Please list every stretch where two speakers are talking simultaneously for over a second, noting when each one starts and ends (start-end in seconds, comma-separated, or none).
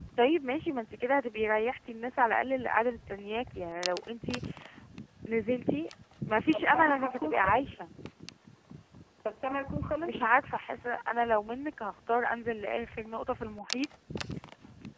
6.4-7.7